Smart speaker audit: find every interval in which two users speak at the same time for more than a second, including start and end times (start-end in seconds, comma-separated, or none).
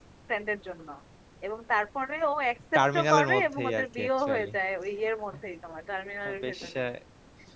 2.7-4.5